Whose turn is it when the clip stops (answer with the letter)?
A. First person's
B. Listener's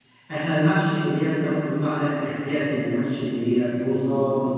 A